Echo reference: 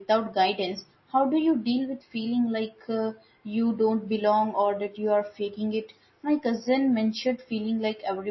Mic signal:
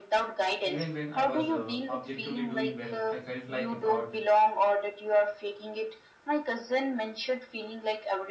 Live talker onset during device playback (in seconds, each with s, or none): 0.6 s